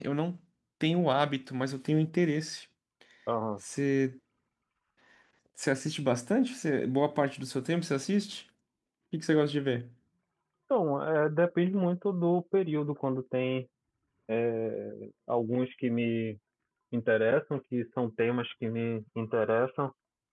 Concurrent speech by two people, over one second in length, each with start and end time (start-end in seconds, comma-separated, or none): none